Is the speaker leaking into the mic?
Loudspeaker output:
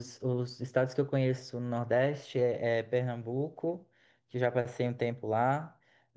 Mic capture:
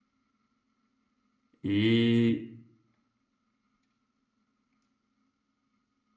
No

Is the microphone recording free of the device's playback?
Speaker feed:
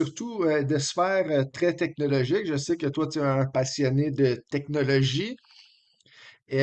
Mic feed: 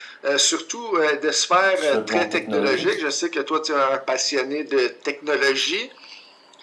No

